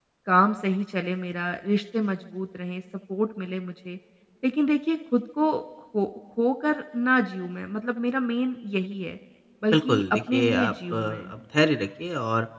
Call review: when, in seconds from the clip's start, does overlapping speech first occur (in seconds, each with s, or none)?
9.7 s